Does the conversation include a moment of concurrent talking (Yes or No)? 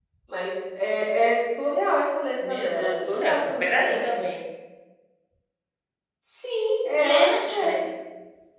Yes